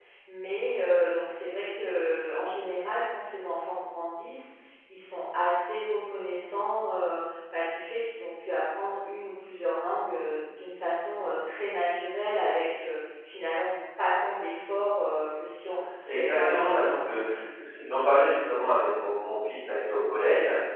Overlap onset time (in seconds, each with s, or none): 16.1 s